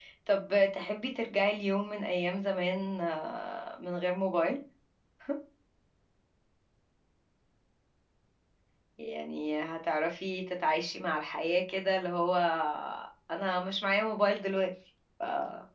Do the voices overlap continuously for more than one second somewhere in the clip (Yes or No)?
No